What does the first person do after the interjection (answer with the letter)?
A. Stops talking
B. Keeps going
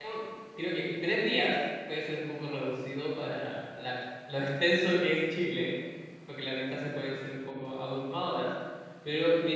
B